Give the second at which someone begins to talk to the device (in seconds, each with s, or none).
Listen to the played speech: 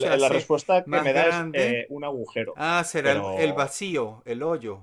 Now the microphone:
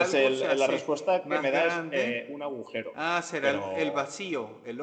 none